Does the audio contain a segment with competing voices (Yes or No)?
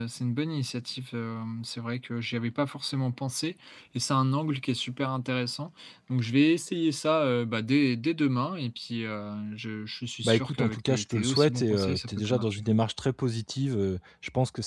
Yes